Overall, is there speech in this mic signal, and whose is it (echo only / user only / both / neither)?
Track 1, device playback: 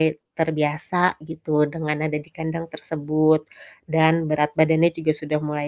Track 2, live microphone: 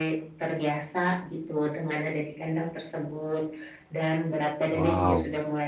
both